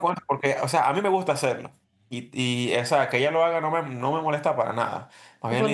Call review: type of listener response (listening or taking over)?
taking over